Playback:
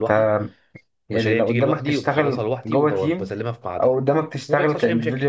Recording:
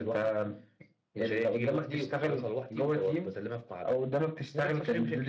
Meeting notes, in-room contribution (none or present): none